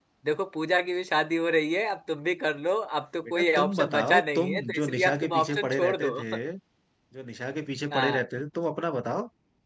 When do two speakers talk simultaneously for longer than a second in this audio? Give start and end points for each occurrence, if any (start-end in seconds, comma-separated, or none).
3.3-6.1